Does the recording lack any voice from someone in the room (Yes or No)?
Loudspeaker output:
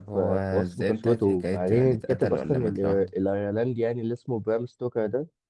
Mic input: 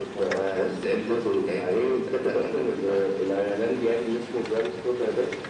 Yes